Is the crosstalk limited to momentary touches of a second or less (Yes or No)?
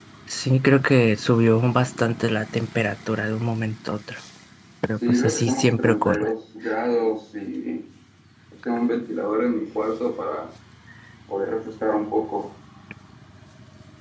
No